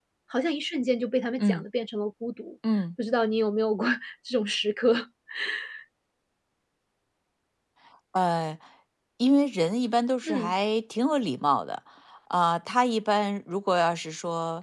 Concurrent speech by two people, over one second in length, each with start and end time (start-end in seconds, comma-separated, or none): none